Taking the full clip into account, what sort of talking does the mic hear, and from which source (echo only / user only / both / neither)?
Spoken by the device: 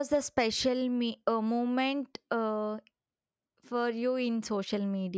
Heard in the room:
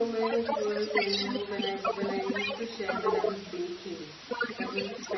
both